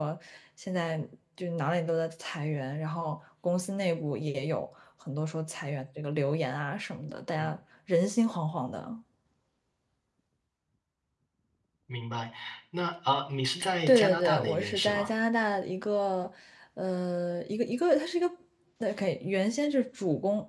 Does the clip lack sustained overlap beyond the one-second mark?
No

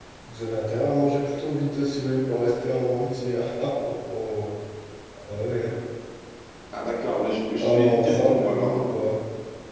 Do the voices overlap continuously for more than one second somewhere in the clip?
Yes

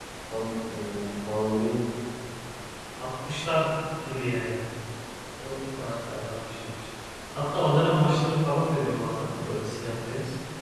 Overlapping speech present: No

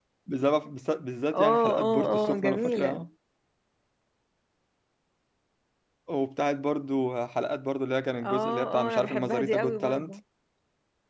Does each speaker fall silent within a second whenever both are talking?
No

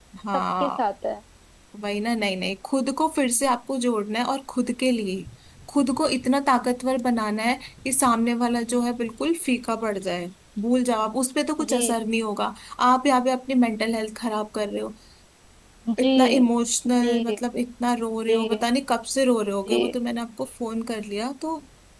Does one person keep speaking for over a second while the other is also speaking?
No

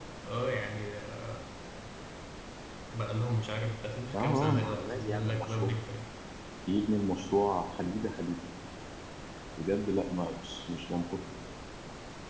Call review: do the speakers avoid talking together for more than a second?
No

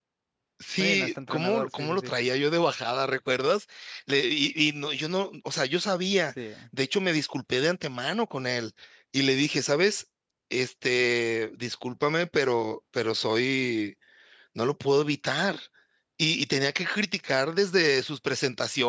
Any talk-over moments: Yes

